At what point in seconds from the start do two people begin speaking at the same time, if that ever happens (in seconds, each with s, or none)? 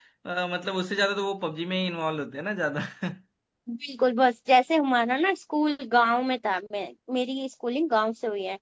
none